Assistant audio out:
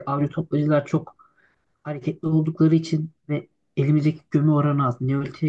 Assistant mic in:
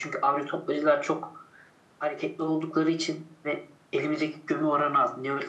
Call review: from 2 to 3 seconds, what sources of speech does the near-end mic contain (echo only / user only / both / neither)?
echo only